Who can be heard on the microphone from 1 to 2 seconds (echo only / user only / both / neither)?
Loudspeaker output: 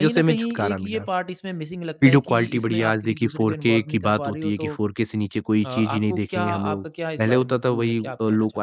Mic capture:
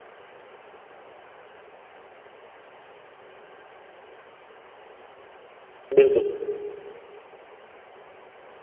neither